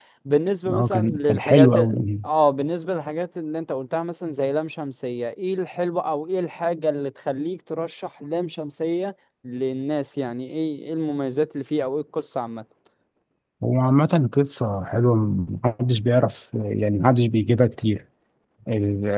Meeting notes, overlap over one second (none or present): present